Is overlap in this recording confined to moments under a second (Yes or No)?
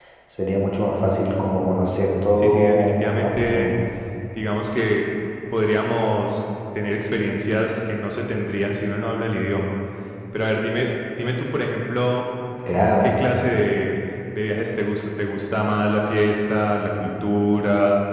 No